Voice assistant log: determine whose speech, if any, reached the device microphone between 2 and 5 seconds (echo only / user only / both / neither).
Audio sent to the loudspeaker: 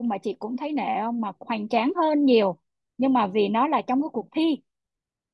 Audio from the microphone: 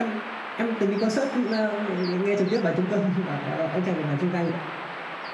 user only